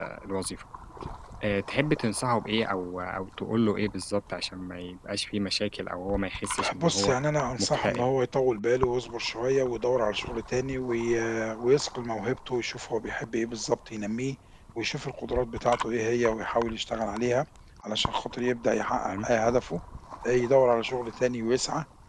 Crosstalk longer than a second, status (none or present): none